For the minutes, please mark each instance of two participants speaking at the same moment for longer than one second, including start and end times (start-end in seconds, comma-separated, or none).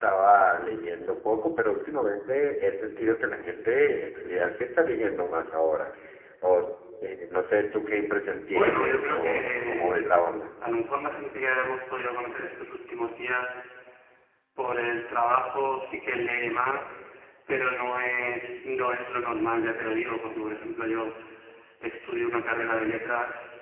8.5-10.0